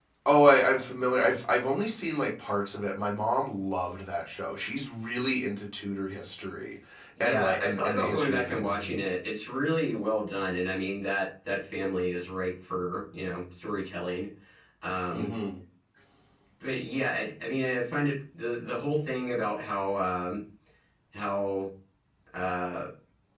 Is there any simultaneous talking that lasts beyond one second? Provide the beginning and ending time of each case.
7.2-9.0

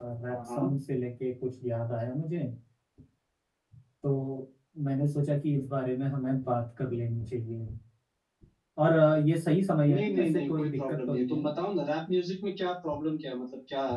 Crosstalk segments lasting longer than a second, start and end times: 9.9-11.5

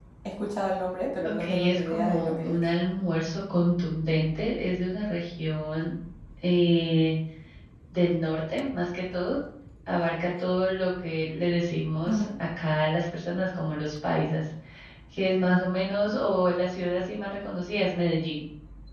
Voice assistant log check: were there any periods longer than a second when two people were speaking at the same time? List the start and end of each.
1.2-2.6

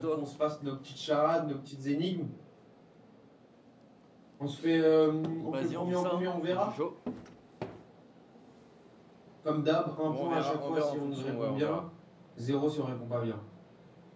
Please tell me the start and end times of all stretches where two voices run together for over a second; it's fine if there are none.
5.5-6.7, 10.1-11.8

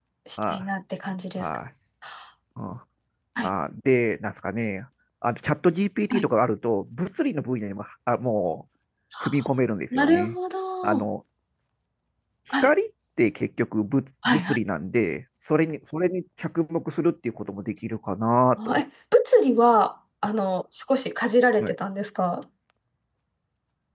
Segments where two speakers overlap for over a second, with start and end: none

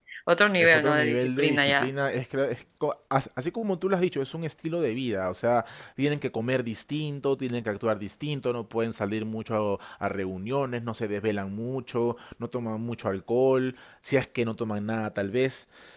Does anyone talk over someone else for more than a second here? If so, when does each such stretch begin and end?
0.6-1.9

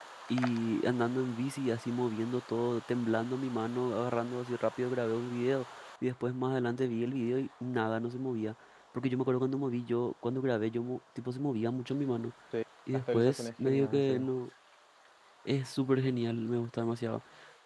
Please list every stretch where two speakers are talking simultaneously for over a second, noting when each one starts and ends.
12.9-14.3

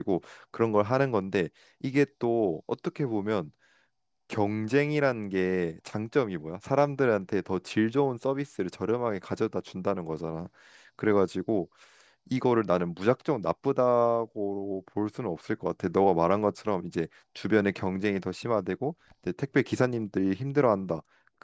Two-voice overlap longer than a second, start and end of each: none

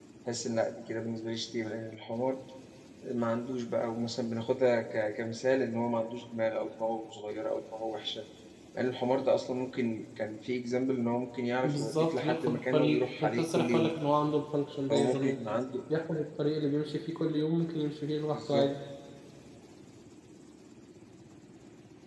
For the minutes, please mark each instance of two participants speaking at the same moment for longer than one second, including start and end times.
11.6-13.9

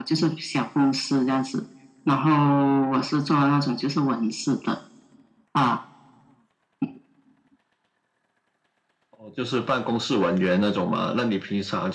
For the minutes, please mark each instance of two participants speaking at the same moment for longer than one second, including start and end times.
none

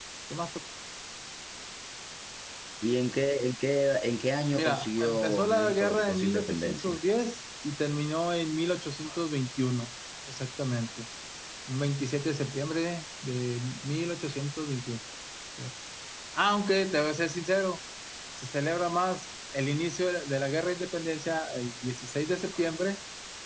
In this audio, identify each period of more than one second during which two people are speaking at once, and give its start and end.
4.5-7.0

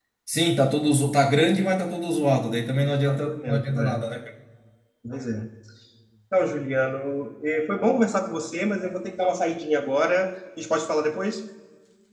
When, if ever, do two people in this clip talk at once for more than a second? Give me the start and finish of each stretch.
2.8-4.0

